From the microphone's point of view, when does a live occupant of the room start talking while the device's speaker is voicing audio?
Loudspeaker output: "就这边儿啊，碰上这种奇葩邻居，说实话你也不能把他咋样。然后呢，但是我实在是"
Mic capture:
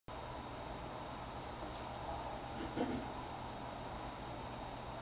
none

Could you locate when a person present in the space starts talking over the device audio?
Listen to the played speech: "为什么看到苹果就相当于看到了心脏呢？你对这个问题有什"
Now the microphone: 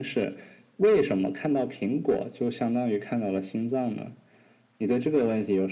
none

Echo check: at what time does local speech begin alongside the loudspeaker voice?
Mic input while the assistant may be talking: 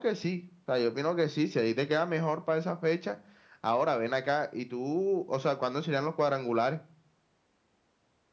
none

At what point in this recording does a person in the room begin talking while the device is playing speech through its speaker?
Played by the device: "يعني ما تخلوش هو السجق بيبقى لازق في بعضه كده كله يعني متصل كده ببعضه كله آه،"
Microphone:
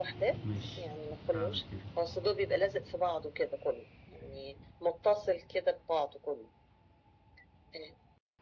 0 s

